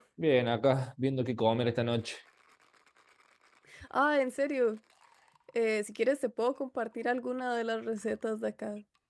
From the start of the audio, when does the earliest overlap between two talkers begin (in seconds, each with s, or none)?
none